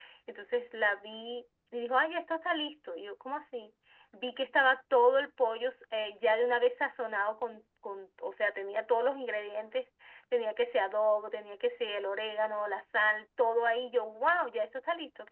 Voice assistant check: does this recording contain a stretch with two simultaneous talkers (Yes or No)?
No